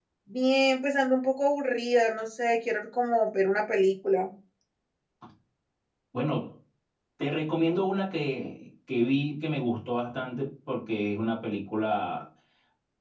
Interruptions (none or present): none